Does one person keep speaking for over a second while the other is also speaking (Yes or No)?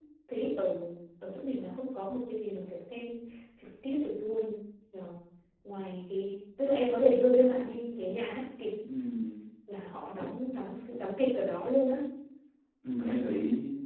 No